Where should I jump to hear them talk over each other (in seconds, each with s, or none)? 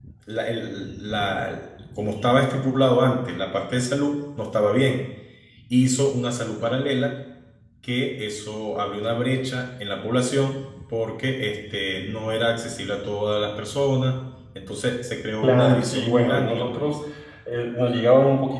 15.4 s